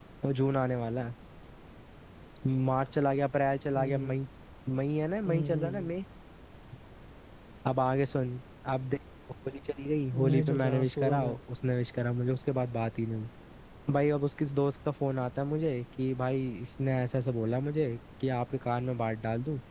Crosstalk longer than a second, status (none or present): present